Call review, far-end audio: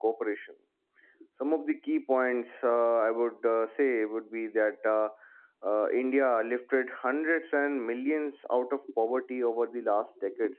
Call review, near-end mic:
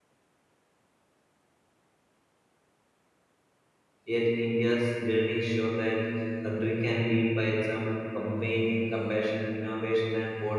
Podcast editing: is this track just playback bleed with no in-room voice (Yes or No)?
No